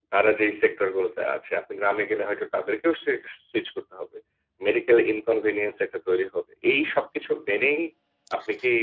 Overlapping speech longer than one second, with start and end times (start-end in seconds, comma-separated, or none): none